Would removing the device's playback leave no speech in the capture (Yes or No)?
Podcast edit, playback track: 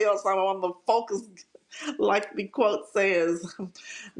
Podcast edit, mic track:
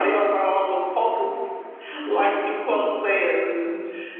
Yes